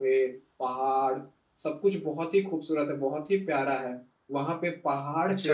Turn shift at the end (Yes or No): No